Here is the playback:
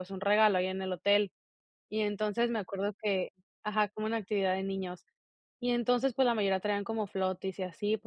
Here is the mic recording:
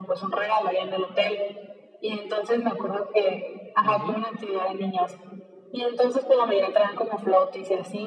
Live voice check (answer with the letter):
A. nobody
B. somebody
B